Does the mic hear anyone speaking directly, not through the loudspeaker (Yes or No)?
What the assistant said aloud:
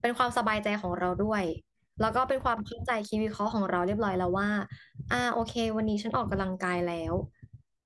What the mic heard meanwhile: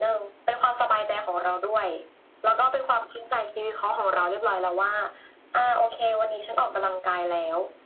No